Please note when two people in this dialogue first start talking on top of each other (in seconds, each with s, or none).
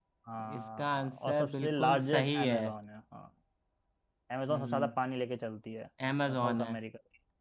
0.6 s